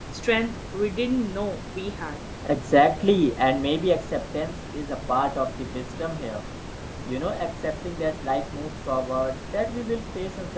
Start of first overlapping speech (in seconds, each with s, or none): none